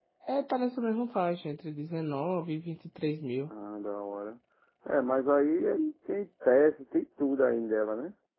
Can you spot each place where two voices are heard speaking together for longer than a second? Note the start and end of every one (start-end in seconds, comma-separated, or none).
none